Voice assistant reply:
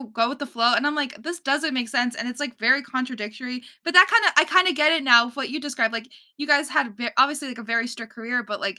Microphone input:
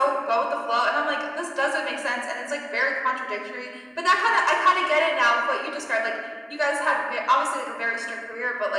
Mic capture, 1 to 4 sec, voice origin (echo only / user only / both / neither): echo only